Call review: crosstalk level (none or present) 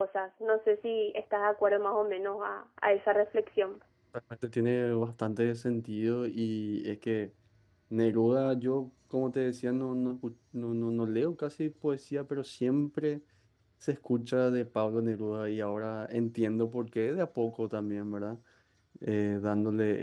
none